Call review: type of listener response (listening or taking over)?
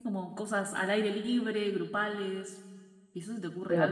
taking over